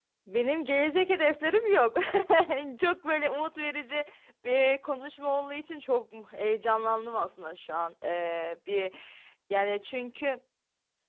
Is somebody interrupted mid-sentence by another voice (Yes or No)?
No